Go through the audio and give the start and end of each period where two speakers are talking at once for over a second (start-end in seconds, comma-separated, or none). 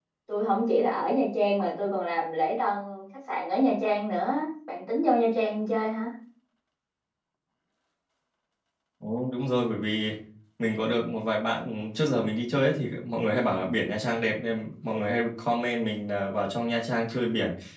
none